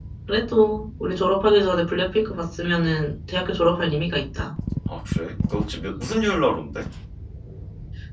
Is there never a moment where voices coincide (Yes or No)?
Yes